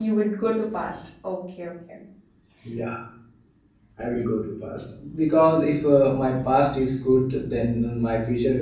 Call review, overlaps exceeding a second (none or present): none